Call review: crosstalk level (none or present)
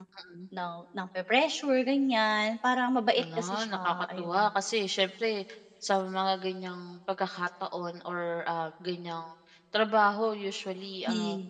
present